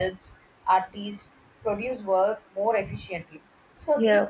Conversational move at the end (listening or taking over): listening